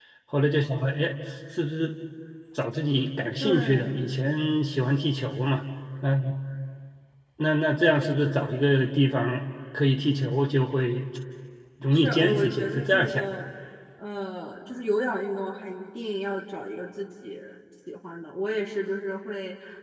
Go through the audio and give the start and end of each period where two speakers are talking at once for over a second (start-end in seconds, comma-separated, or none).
11.9-13.2